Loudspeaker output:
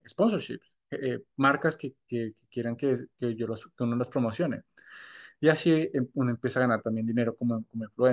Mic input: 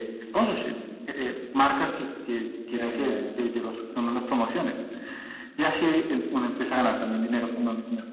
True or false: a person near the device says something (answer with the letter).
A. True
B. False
A